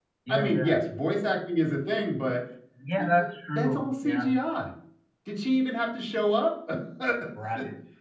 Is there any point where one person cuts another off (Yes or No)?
Yes